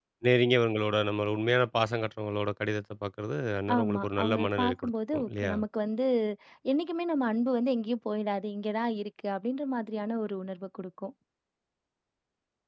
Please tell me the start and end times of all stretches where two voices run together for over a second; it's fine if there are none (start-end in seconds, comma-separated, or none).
3.8-5.5